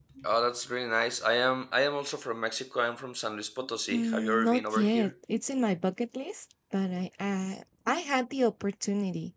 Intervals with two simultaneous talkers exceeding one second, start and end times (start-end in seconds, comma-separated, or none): 3.9-5.1